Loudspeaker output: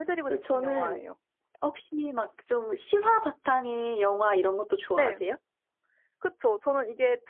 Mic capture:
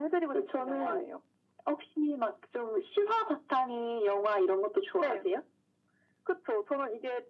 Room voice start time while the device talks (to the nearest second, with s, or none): none